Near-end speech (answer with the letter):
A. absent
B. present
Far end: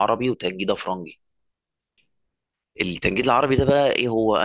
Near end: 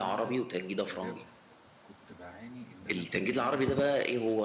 B